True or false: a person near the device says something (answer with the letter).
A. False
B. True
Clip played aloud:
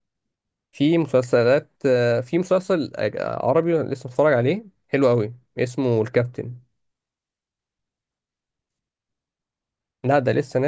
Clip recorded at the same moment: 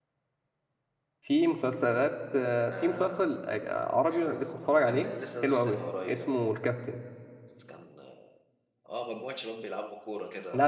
B